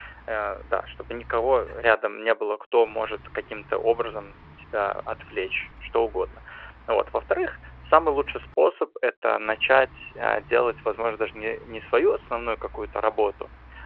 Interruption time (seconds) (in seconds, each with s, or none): none